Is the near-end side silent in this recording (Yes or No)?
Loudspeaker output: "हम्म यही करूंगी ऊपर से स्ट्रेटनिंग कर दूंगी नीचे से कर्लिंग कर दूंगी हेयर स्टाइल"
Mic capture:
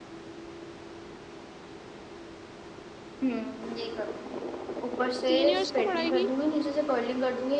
No